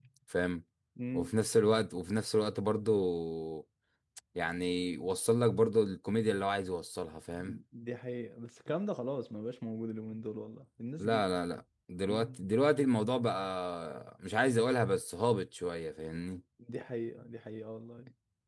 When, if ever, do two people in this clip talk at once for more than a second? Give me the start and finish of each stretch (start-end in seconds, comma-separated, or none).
none